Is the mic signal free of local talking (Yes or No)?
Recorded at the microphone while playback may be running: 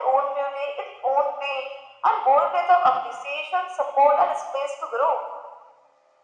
Yes